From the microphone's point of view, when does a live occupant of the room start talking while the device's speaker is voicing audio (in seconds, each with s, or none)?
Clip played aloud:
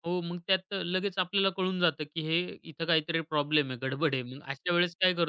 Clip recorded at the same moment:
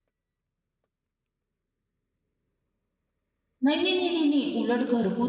3.6 s